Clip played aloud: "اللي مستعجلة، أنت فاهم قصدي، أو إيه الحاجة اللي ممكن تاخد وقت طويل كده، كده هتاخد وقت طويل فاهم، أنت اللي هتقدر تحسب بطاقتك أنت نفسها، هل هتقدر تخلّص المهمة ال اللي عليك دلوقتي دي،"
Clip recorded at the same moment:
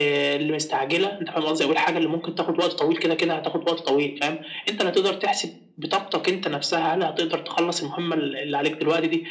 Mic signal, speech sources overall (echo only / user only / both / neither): echo only